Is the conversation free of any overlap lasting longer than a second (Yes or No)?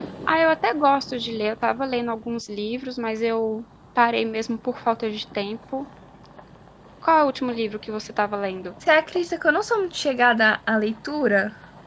Yes